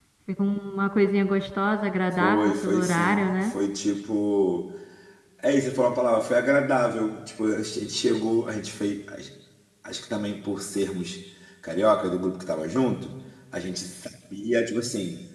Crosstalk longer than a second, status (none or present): present